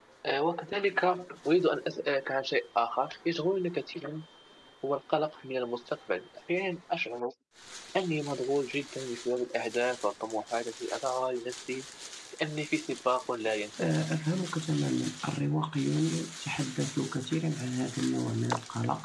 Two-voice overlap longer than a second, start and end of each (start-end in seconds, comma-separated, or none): none